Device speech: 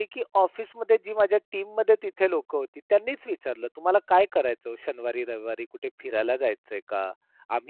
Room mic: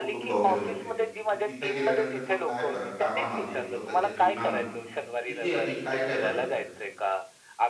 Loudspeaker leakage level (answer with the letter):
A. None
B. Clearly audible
B